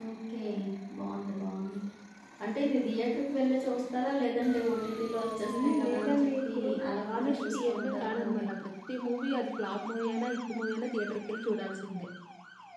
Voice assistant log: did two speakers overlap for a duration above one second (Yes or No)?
Yes